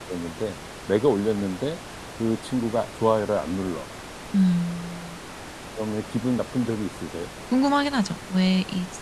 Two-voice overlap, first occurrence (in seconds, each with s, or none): none